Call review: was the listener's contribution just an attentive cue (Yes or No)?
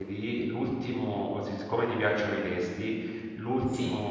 Yes